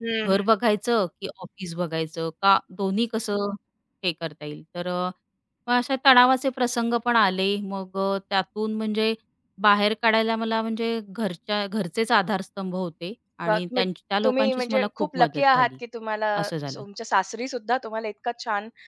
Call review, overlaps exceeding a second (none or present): present